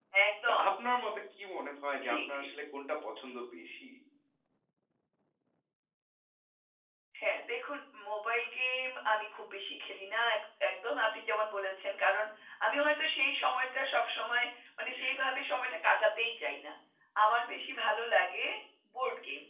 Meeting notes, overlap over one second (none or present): none